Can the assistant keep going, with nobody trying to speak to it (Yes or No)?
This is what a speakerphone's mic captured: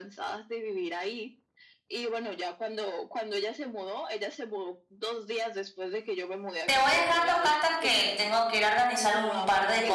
No